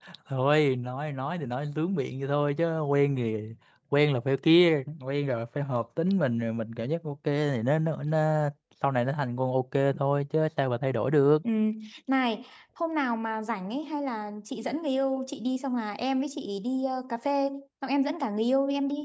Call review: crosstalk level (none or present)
none